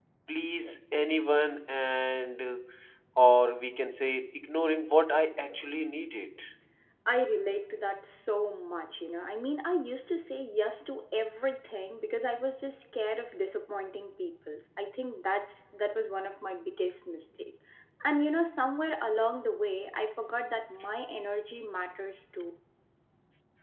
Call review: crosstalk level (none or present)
none